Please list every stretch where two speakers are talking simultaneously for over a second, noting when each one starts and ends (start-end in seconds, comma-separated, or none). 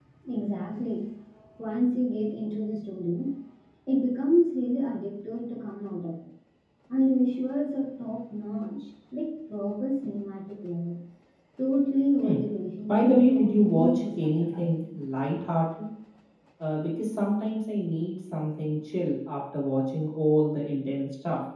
12.9-14.7